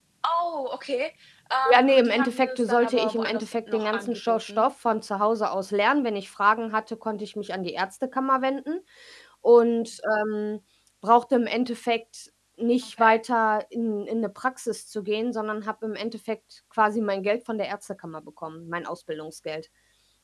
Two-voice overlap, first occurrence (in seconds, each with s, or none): 1.7 s